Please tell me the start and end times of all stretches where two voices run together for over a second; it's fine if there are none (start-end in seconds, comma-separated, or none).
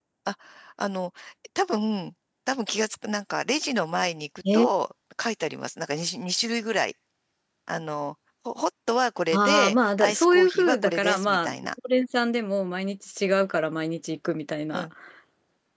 9.3-11.6